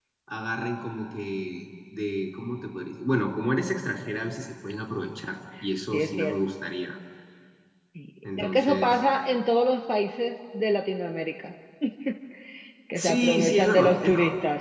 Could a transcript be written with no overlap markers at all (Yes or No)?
No